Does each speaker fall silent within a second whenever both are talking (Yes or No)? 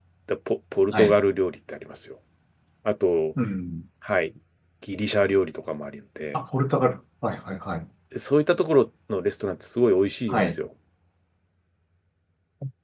Yes